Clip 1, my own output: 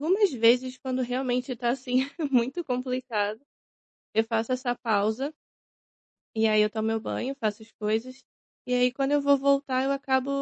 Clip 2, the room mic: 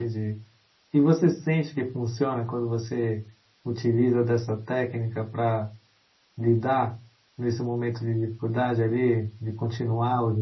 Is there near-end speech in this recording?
Yes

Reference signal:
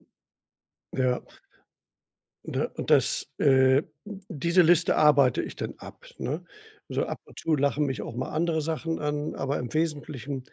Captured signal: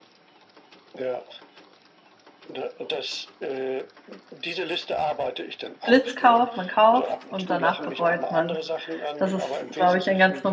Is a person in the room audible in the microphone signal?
Yes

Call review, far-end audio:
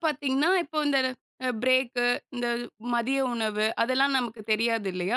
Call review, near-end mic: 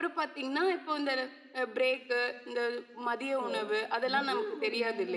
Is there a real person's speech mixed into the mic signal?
Yes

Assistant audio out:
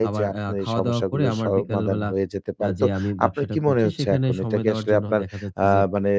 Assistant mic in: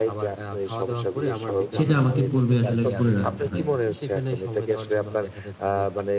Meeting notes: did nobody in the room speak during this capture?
No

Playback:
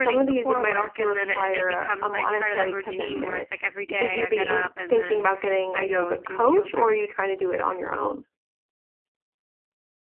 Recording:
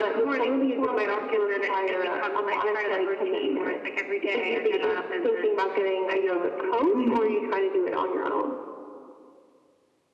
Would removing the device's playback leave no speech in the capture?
No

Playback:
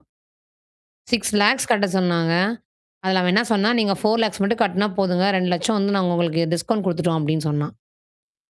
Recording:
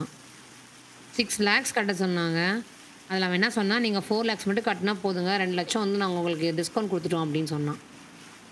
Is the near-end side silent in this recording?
Yes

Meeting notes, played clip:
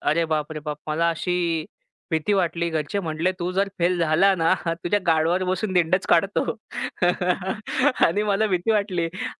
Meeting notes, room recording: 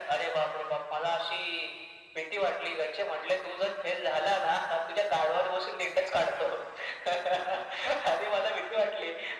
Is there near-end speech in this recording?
No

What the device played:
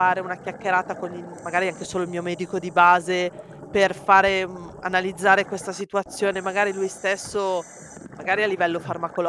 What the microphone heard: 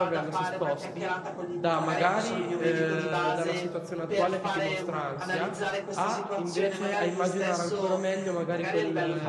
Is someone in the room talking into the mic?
Yes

